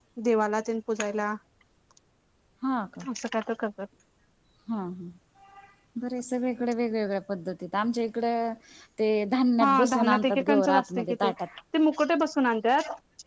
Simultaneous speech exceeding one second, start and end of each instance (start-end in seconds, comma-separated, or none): 9.6-11.3